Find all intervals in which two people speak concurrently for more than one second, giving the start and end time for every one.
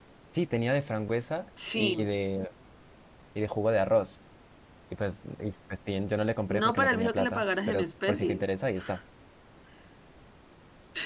6.5-8.4

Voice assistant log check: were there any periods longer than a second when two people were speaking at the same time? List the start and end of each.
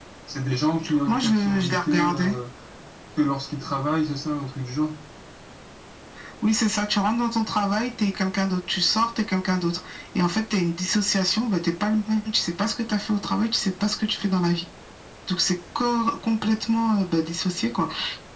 1.1-2.3

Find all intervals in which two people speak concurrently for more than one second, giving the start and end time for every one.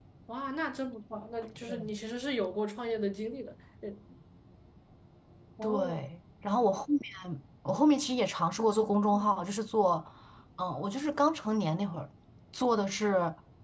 none

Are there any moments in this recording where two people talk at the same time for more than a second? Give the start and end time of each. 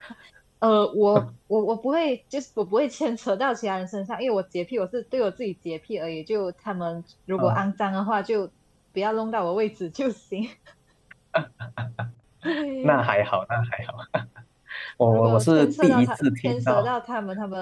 15.1-16.9

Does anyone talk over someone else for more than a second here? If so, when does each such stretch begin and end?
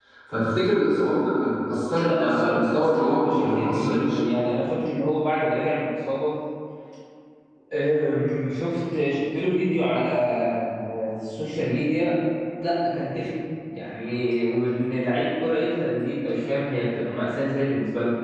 2.0-4.2

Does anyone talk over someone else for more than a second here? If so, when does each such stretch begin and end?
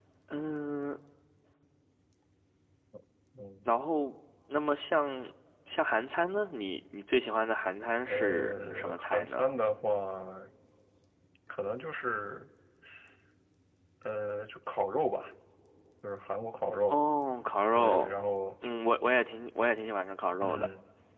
8.1-9.5

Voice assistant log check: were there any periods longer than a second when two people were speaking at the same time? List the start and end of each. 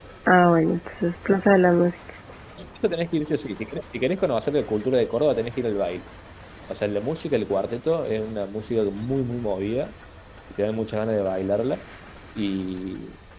none

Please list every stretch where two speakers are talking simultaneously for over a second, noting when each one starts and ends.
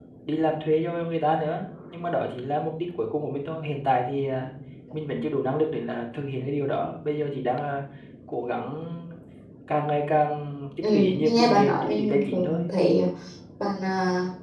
10.8-12.6

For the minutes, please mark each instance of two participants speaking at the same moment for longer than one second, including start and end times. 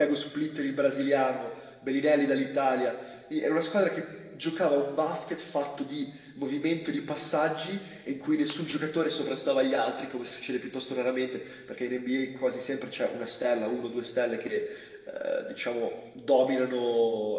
none

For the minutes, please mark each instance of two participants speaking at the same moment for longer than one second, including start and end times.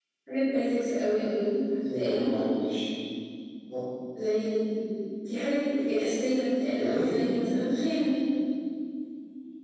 none

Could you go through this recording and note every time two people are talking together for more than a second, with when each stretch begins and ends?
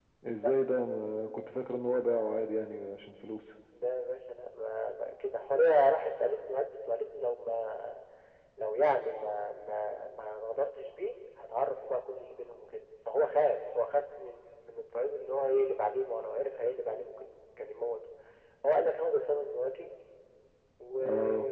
none

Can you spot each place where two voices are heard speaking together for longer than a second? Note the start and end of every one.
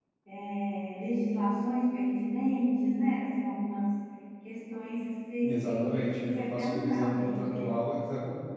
5.4-7.8

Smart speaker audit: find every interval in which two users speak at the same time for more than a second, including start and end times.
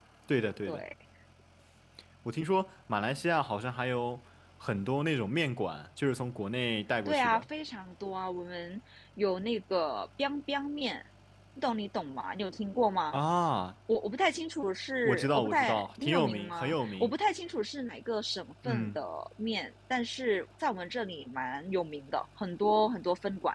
15.1-17.1

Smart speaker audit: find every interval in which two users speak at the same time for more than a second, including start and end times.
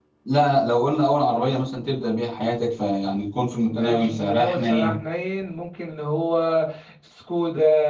3.6-5.0

